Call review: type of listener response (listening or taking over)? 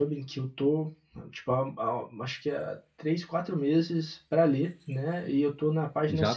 taking over